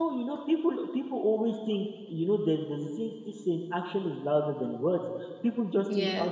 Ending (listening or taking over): listening